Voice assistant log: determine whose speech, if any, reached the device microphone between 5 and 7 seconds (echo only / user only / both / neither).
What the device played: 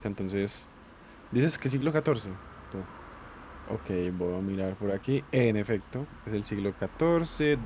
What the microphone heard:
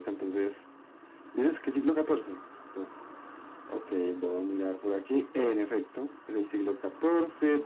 echo only